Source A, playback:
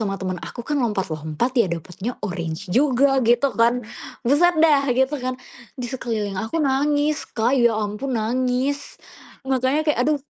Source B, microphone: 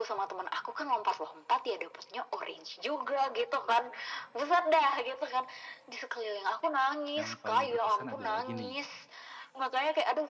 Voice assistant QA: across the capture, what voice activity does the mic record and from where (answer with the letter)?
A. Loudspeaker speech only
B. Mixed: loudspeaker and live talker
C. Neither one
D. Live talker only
B